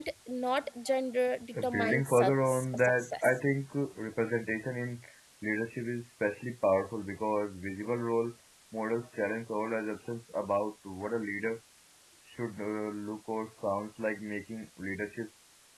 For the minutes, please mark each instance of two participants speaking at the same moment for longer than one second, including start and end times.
1.6-3.3

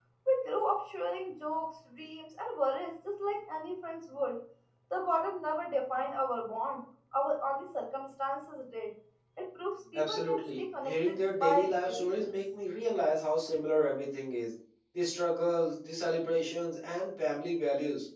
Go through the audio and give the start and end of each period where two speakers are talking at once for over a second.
9.9-12.3

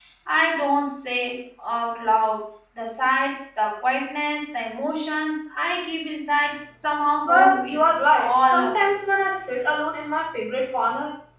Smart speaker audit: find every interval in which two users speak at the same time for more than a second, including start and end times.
7.3-8.9

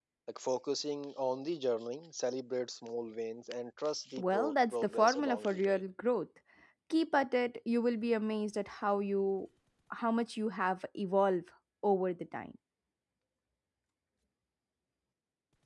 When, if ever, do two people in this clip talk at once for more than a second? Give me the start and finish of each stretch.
4.2-5.8

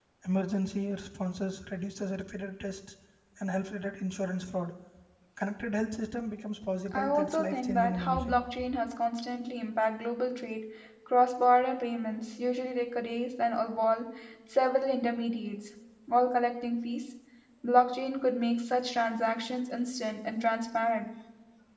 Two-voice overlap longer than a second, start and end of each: 7.0-8.4

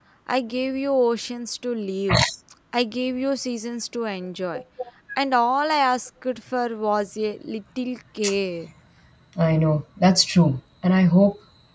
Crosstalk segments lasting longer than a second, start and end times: none

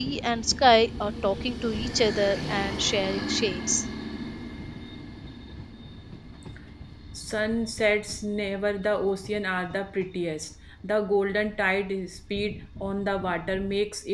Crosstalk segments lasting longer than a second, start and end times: none

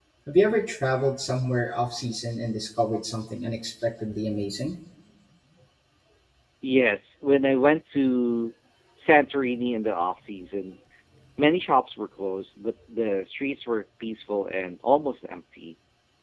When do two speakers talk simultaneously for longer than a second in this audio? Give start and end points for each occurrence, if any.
none

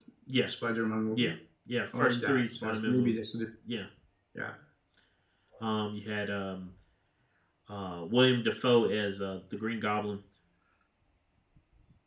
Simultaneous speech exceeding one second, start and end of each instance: 2.0-3.2

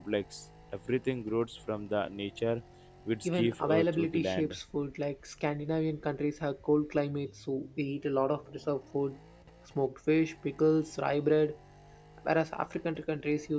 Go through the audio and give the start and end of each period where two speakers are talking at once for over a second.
3.2-4.5

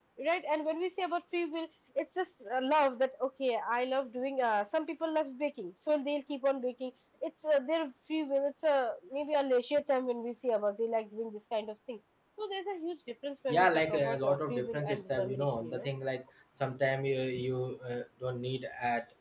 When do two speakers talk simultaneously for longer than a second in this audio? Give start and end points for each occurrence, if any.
13.5-15.9

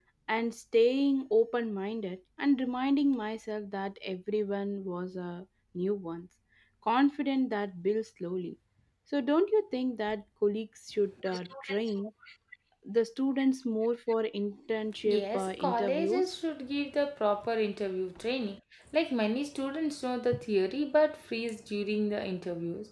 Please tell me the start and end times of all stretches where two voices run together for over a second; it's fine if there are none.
15.0-16.3

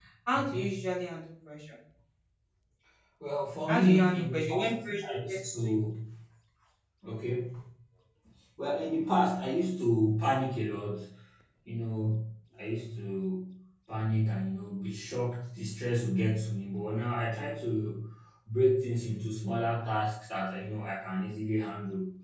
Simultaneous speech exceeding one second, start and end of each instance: 3.7-5.9

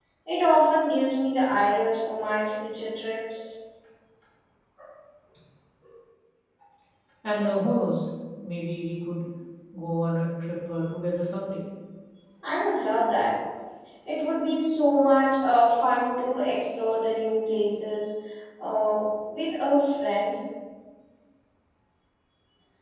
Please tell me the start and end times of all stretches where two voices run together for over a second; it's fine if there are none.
none

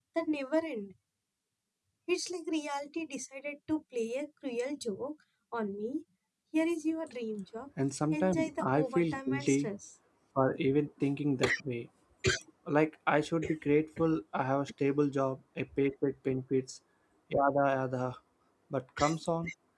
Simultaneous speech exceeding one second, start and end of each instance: 8.1-9.7

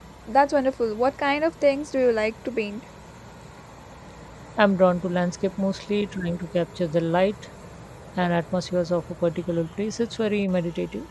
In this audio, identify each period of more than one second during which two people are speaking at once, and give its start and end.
none

